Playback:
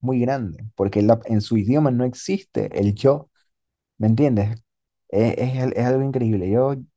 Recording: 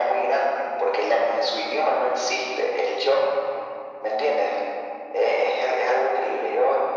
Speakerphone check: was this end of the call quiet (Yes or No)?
Yes